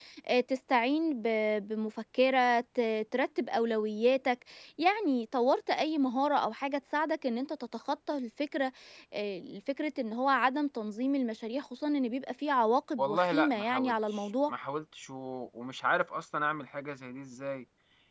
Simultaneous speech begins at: 13 s

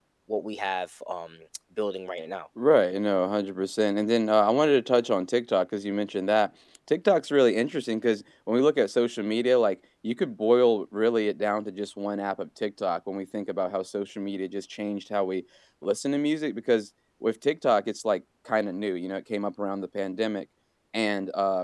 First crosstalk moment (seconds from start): none

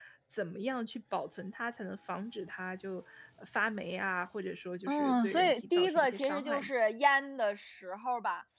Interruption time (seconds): 5 s

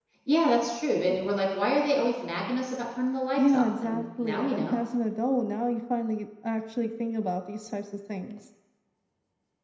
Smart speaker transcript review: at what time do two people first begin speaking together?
3 s

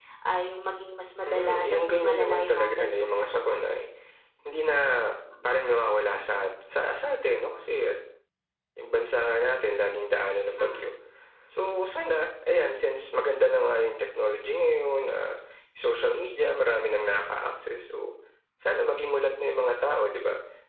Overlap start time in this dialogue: 1 s

